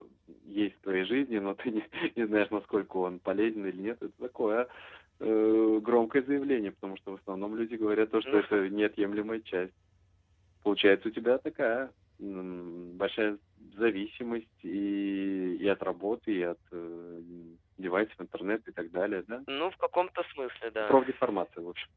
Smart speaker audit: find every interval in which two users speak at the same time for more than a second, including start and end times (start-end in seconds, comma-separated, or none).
none